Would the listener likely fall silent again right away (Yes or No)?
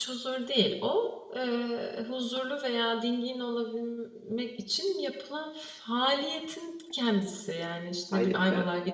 Yes